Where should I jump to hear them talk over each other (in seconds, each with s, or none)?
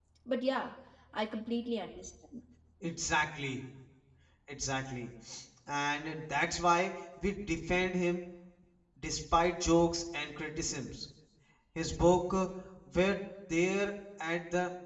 none